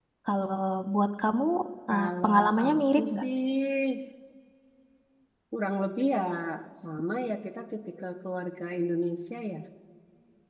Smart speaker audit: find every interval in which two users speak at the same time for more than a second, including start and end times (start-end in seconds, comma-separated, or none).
1.9-3.2